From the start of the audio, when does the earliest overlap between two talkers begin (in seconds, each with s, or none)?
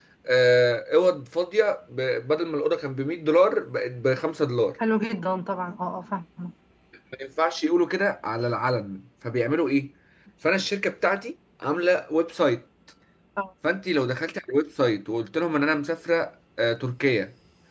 none